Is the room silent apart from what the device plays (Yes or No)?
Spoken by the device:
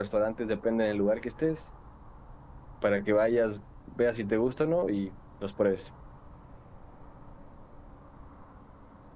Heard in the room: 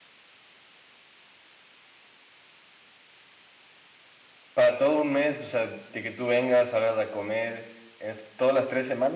No